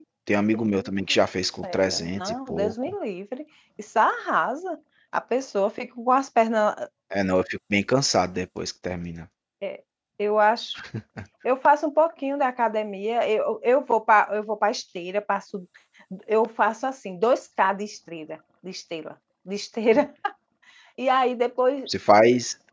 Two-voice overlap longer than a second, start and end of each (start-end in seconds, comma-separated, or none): 1.6-3.0